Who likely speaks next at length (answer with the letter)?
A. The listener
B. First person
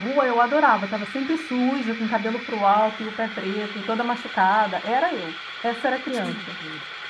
A